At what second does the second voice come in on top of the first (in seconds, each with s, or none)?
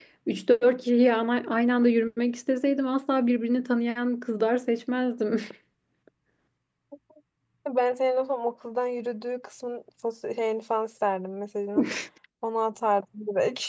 none